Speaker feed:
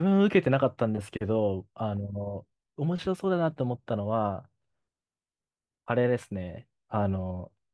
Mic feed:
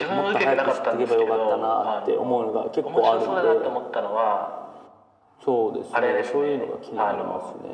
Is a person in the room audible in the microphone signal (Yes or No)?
Yes